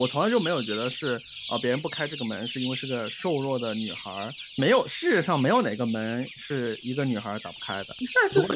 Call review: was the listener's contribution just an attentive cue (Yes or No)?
No